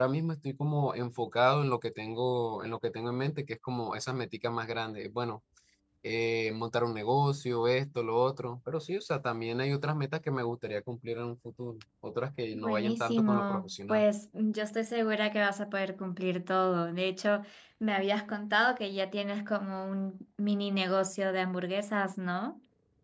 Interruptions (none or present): present